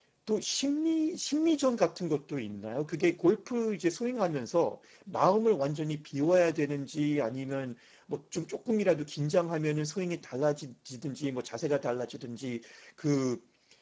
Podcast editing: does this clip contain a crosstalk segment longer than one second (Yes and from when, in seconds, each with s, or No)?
No